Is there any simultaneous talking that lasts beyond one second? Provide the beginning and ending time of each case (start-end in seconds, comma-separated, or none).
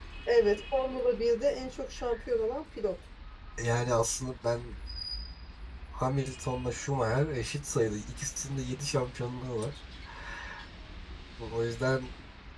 none